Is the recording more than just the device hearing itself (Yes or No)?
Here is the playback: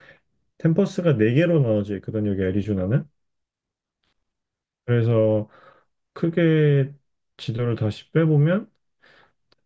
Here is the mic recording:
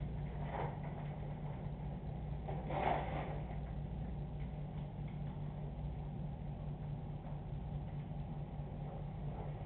No